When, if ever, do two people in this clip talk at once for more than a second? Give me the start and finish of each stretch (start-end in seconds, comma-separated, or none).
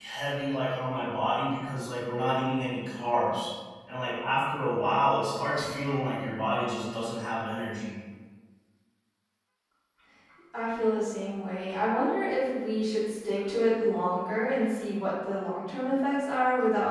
none